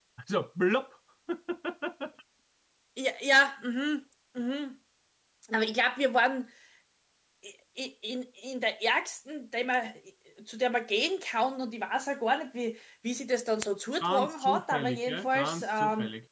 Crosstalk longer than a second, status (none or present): present